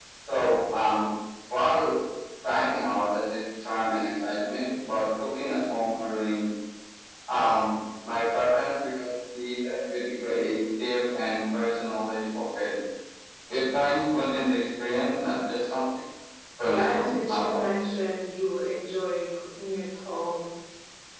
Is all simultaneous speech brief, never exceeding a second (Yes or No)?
No